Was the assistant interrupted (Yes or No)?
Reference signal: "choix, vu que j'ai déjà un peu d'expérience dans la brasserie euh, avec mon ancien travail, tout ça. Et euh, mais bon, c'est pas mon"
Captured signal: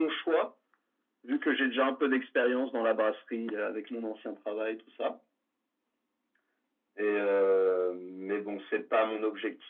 No